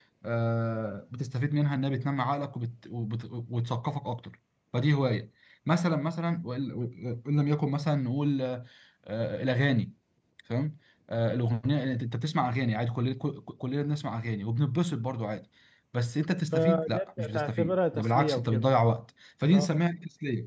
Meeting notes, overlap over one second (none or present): present